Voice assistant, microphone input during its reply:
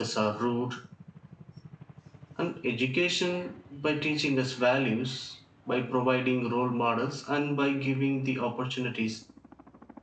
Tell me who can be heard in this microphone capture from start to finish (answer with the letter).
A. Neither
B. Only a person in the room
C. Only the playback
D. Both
B